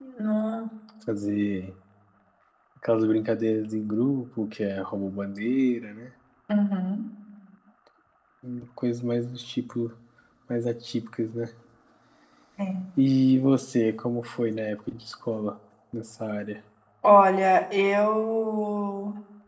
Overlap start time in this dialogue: none

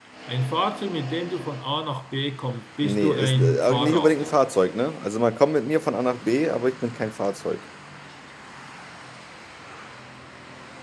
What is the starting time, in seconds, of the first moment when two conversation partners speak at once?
3 s

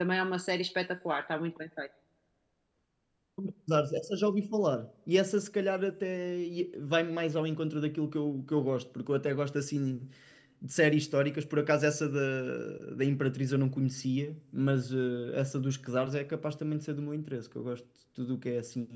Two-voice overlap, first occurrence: none

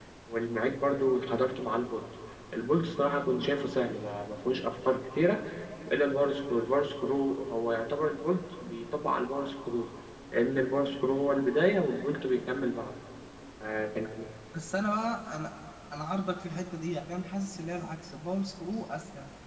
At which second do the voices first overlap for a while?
none

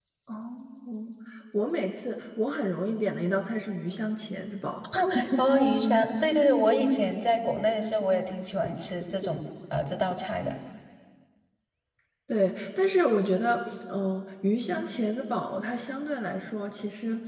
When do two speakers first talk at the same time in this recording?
none

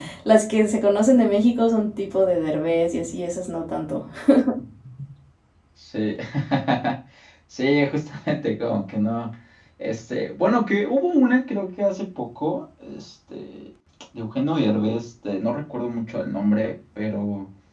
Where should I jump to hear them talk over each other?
none

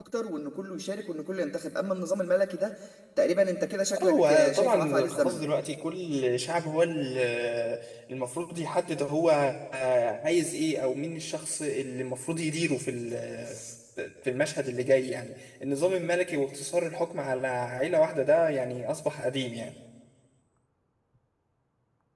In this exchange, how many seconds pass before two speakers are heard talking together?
4 s

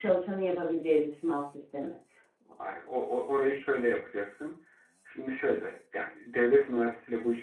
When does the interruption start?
none

